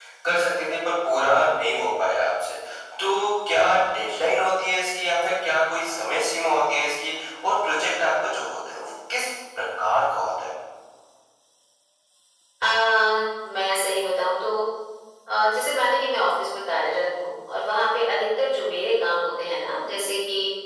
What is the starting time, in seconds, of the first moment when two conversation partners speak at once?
none

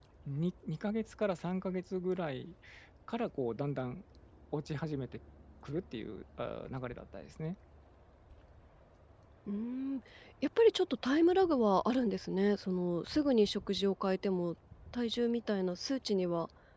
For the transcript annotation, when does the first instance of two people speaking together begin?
none

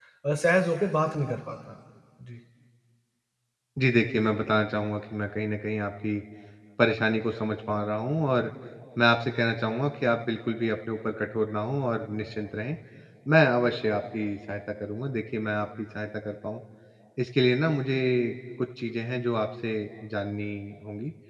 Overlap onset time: none

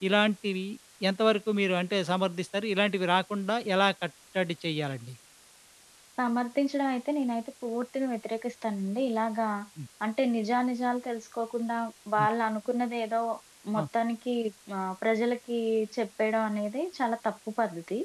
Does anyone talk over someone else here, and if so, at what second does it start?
none

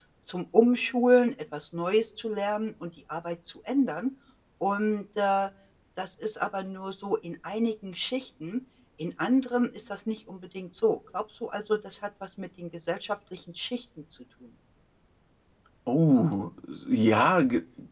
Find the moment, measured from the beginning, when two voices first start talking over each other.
none

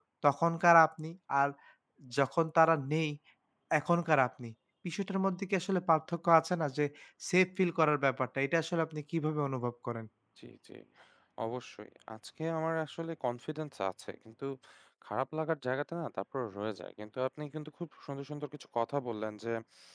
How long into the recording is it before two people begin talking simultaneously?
none

